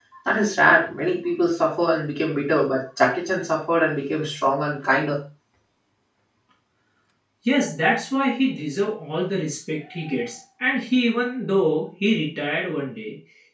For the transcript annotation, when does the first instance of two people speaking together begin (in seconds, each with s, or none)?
none